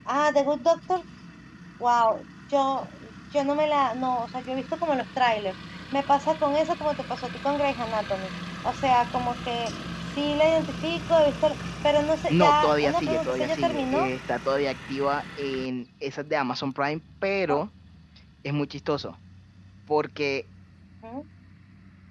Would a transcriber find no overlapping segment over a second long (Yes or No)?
No